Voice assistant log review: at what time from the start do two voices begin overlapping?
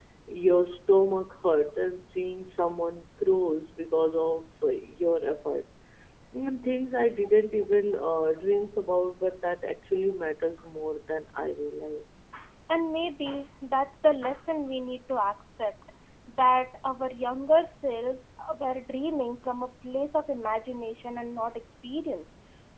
none

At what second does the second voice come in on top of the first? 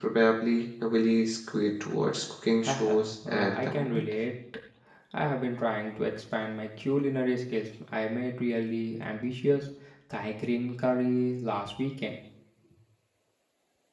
3 s

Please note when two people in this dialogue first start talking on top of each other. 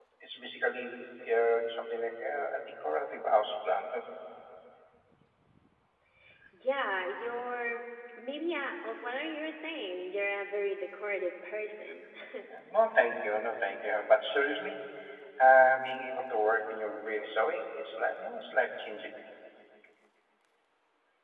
none

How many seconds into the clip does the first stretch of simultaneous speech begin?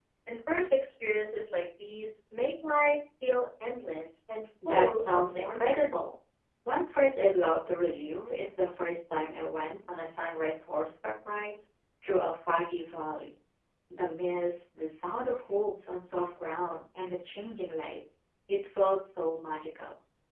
5 s

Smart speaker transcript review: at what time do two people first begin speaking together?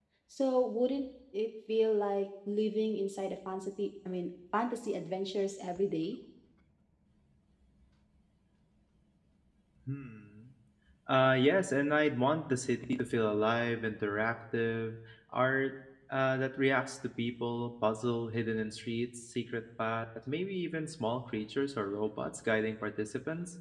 none

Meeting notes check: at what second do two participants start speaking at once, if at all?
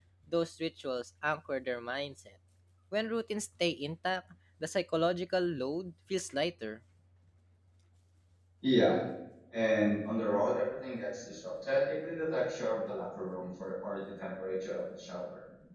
none

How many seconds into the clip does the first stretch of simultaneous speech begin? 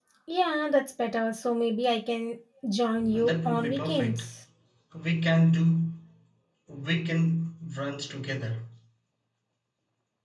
3 s

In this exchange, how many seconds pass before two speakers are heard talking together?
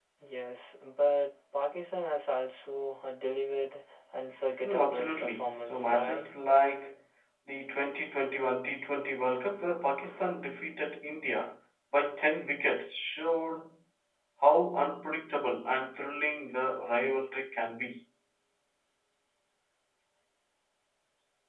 5 s

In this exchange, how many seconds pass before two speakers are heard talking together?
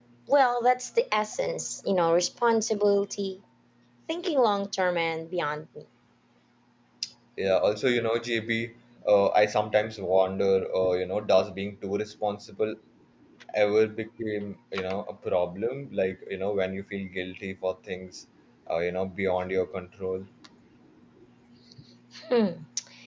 none

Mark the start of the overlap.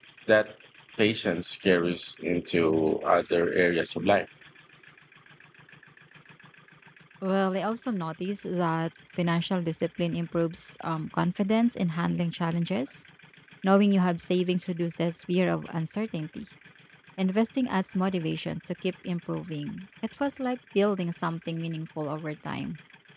none

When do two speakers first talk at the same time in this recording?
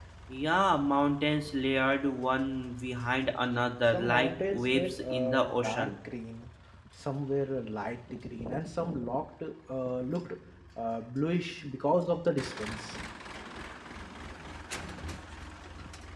4 s

